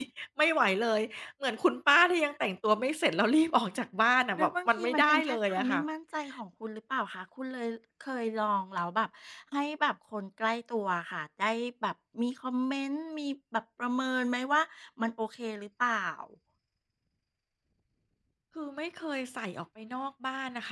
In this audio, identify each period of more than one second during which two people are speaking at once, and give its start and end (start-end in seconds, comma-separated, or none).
4.3-5.8